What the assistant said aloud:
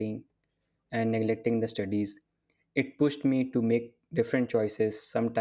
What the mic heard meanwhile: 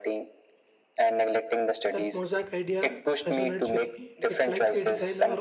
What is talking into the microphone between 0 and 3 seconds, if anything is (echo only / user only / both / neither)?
both